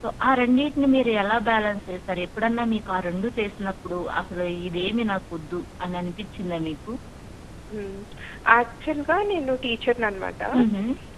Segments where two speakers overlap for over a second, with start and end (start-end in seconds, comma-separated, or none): none